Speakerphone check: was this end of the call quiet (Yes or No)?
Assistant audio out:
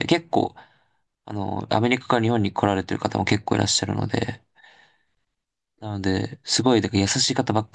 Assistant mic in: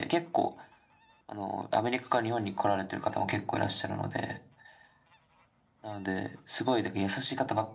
Yes